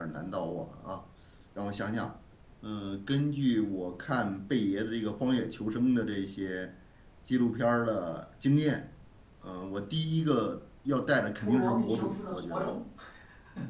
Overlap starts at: 11.4 s

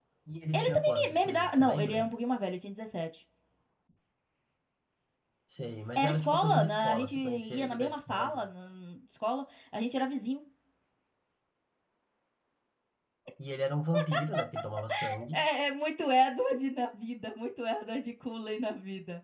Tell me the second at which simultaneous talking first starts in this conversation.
0.5 s

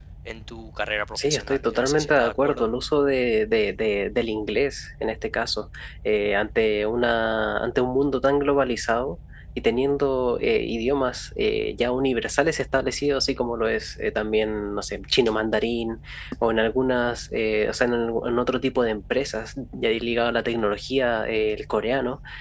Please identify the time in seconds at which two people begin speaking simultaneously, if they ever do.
1.1 s

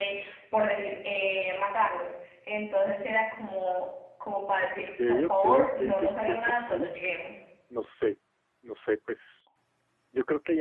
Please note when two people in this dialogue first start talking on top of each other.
4.8 s

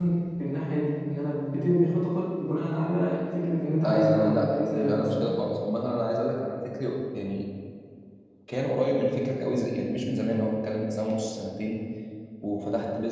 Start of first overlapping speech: 3.8 s

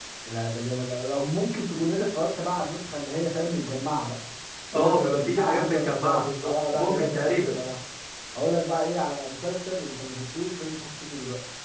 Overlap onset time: 4.7 s

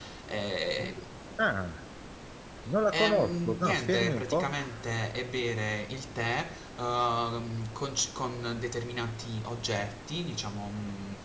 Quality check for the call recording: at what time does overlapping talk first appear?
2.9 s

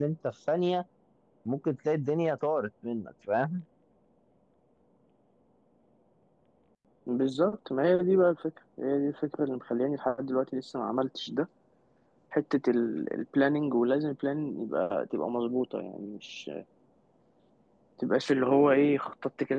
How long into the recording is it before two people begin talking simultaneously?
none

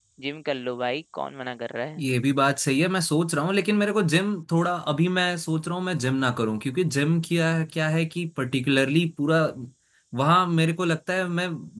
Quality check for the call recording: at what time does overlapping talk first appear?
none

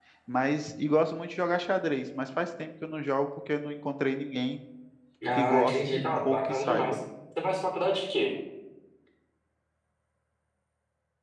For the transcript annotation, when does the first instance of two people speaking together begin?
5.3 s

